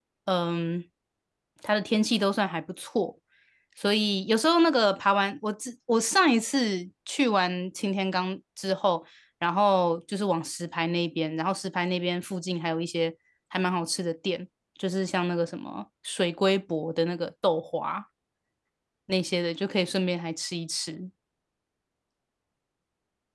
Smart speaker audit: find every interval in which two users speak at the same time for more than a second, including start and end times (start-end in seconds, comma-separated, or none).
none